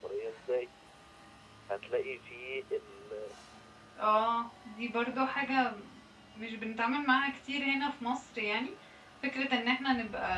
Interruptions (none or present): none